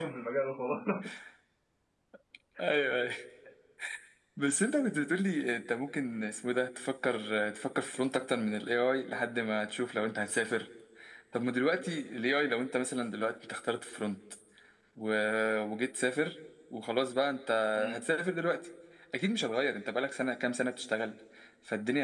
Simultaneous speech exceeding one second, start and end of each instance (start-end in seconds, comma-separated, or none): none